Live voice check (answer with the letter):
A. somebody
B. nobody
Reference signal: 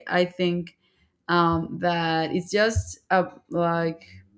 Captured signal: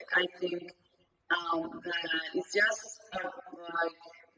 B